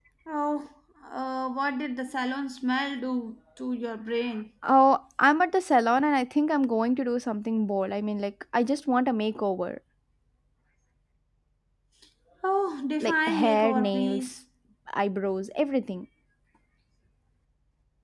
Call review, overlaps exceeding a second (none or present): present